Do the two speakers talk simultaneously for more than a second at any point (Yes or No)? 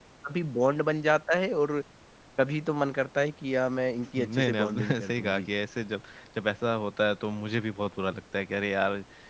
Yes